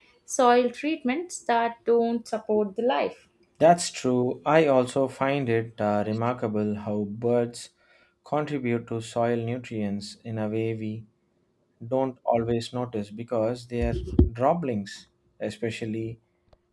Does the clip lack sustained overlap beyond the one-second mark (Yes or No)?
Yes